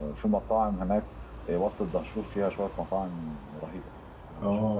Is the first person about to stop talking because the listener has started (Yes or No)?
Yes